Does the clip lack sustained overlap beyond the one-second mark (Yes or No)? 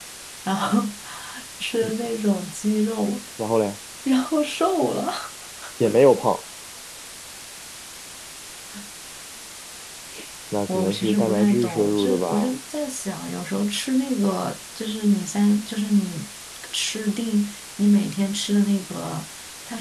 No